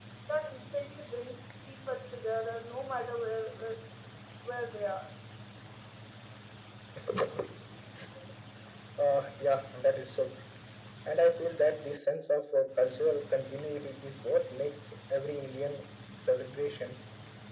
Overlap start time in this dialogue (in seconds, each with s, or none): none